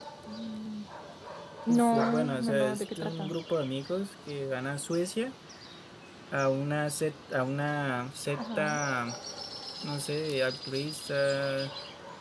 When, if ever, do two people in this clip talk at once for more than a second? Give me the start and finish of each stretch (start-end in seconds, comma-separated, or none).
1.7-3.3